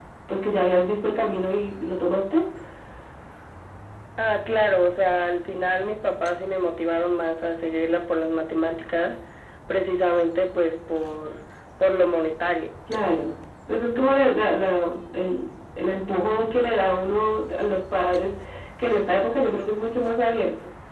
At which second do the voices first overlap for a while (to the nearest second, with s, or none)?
none